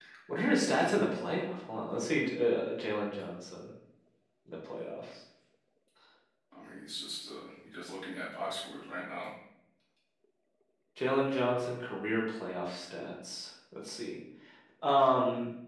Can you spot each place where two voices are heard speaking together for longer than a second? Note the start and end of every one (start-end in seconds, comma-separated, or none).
none